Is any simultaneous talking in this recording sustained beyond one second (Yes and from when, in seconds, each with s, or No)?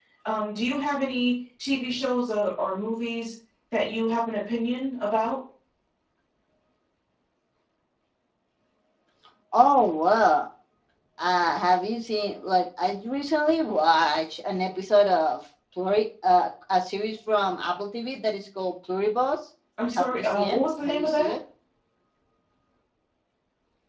Yes, from 19.9 s